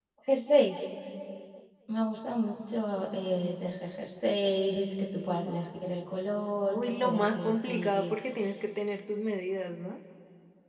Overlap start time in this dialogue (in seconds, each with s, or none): 6.7 s